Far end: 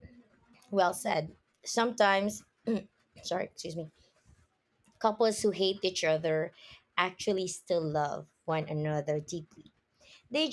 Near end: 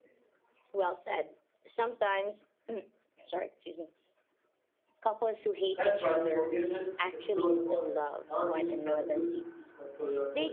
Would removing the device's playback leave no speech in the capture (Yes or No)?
No